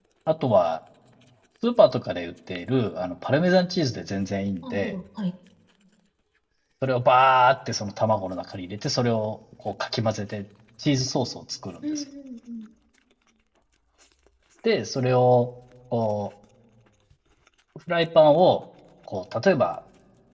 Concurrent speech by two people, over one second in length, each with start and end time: none

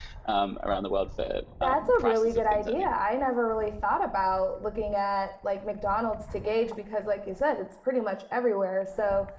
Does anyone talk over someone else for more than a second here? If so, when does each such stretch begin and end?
1.6-2.8

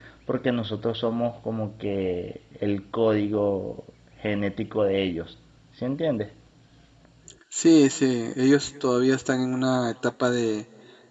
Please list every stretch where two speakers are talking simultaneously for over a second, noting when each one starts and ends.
none

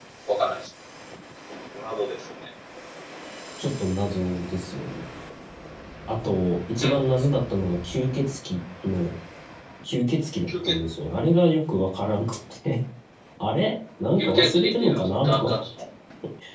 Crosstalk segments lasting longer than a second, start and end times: 14.2-15.6

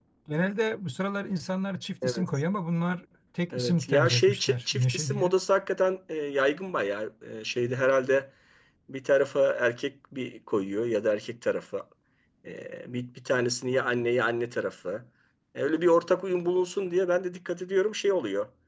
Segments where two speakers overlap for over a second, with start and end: 3.5-5.3

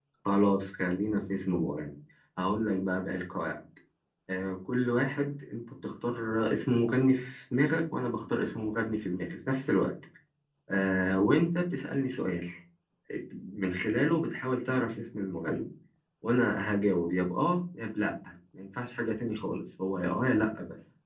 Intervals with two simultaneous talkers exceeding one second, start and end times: none

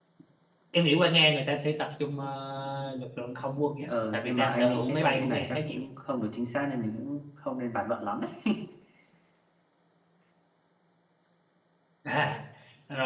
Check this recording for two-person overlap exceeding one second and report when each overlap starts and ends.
3.9-5.8

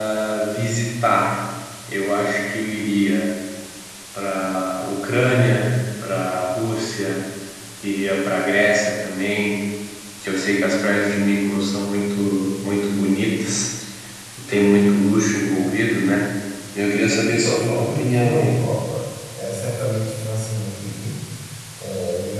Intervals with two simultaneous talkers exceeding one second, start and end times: 17.3-18.6

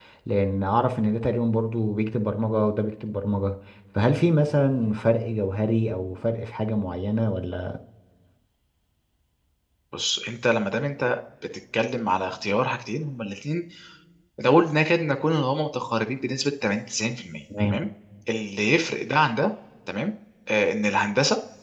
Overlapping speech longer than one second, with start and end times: none

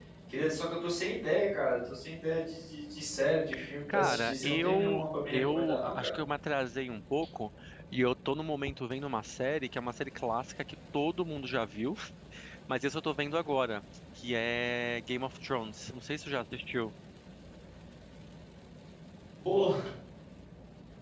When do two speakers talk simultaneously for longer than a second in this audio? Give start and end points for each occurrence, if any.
3.9-6.2

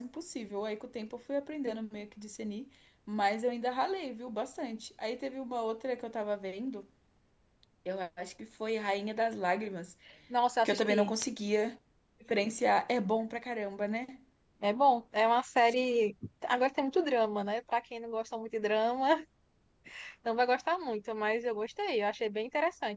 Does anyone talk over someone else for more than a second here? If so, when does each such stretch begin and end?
none

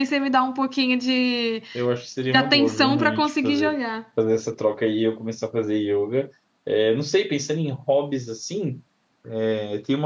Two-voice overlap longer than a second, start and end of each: 2.3-3.8

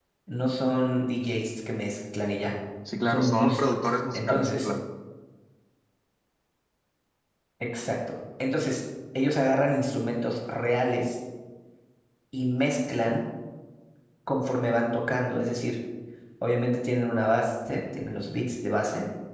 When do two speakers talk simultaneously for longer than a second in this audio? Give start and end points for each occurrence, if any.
3.0-4.7

